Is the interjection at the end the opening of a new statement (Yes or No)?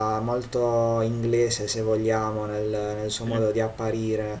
No